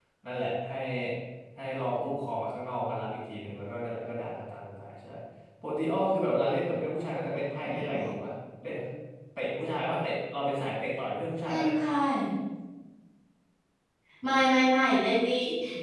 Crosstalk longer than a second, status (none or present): none